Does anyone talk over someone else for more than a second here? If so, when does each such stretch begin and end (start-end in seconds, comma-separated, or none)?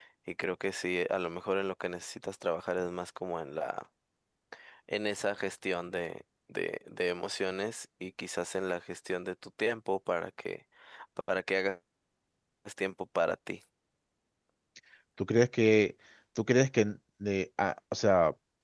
none